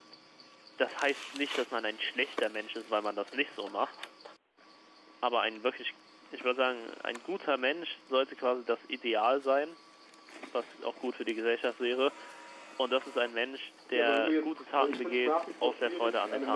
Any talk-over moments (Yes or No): Yes